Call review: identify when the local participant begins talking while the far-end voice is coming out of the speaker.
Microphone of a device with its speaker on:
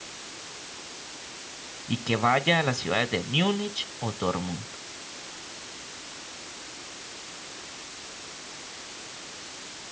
1.9 s

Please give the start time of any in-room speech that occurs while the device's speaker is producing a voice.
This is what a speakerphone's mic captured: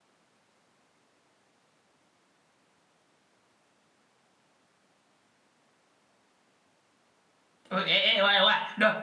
7.7 s

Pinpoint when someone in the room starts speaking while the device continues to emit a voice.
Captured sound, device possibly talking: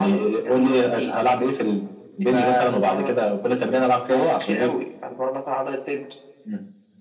none

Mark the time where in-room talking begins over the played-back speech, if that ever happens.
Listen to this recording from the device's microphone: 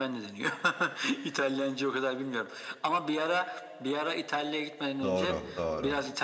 5.0 s

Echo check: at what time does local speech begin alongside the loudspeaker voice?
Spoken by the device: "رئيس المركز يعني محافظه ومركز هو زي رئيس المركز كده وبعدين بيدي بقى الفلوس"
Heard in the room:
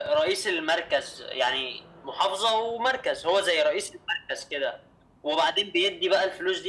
none

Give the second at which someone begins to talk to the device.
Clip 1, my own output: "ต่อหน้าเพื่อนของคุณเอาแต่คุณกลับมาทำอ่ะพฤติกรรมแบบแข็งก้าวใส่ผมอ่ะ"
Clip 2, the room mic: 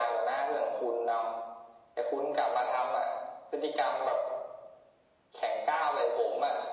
none

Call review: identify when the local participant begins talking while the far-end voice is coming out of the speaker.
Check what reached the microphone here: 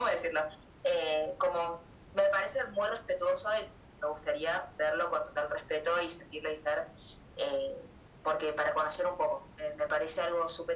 none

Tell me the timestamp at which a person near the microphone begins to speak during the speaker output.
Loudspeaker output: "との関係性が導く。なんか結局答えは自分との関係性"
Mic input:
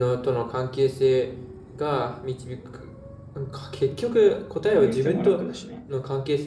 4.7 s

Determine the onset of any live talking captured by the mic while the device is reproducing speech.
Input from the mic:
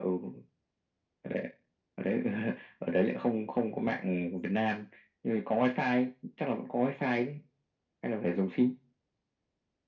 none

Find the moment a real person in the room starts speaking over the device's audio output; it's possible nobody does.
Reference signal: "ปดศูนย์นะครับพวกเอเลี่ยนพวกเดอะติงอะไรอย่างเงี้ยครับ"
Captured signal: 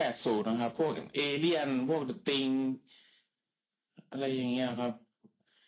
none

